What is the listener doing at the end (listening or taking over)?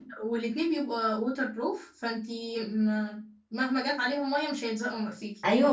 taking over